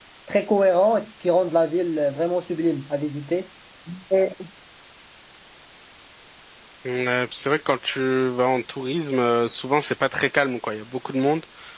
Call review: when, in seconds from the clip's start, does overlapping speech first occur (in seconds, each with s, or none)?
none